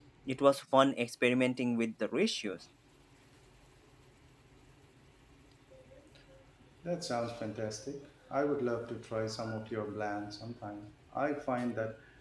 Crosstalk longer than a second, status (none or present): none